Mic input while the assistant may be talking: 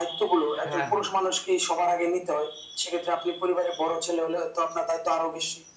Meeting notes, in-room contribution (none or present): present